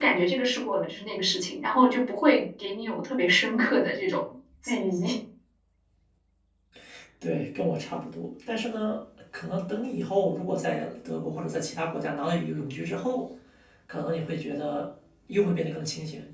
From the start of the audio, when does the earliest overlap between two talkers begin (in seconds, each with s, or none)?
none